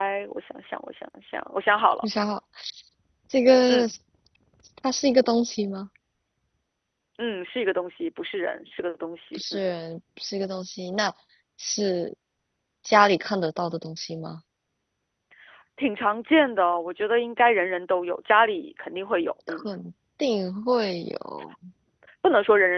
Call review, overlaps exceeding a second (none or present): none